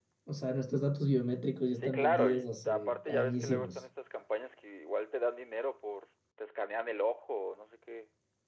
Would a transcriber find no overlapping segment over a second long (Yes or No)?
No